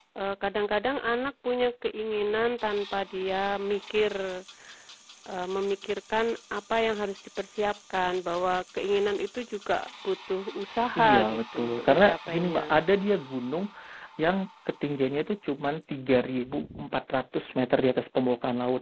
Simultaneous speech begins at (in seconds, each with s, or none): 11.0 s